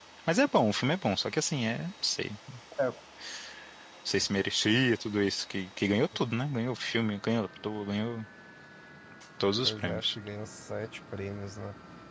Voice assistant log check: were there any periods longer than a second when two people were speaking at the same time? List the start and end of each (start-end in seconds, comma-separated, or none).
none